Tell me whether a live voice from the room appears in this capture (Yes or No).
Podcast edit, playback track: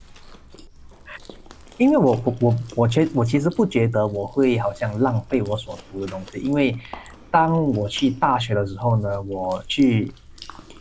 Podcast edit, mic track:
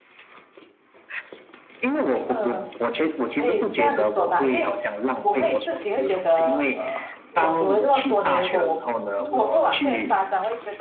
Yes